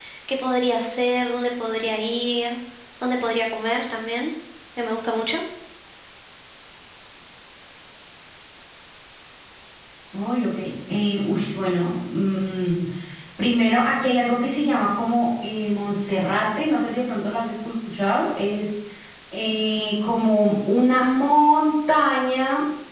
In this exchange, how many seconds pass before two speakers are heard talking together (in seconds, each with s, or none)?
none